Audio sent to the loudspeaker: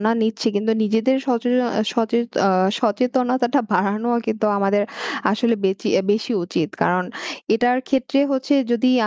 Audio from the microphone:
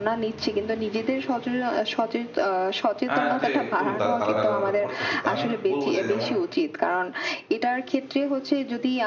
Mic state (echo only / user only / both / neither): both